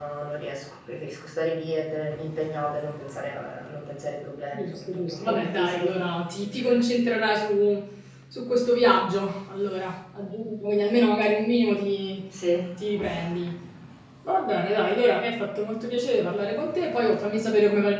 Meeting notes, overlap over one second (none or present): present